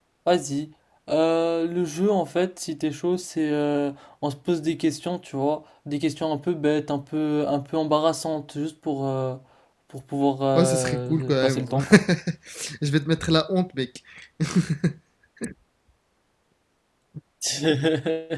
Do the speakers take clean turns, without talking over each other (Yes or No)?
No